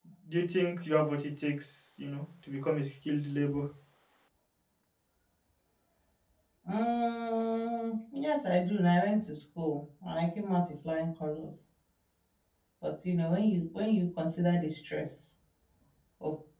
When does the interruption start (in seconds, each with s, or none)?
none